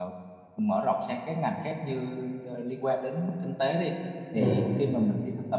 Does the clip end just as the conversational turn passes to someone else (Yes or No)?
No